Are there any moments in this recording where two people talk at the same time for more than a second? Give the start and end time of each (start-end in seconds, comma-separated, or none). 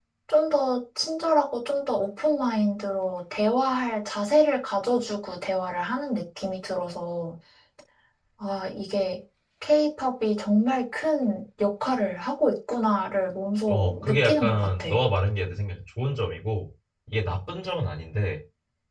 13.7-14.9